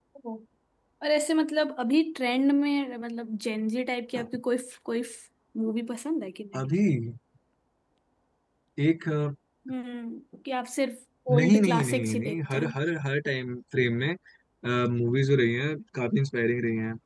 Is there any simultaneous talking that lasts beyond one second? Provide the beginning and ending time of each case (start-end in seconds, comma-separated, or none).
11.4-12.7